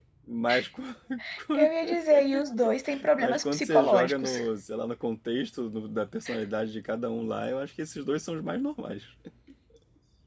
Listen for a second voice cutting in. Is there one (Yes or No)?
Yes